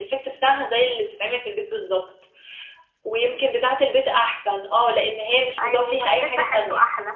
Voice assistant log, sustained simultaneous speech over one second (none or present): present